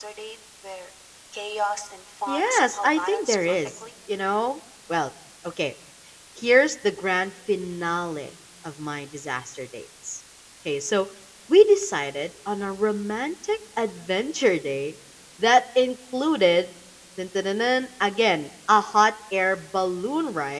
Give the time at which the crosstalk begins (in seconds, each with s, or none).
2.3 s